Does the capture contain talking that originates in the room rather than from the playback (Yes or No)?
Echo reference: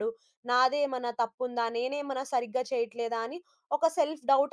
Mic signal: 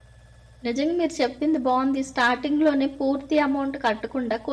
Yes